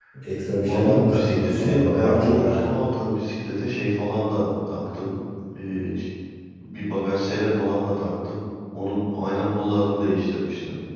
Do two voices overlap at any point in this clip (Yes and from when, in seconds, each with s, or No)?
Yes, from 0.6 s